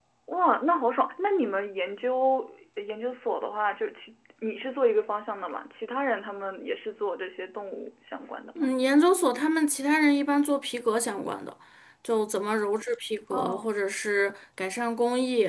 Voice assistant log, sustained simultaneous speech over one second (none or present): none